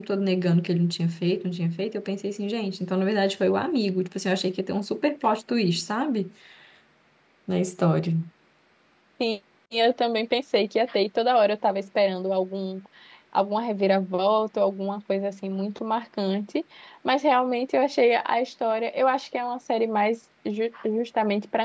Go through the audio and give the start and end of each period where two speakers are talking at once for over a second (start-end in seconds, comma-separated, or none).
none